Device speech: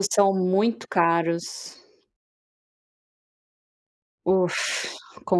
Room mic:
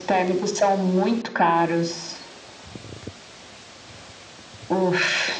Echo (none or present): present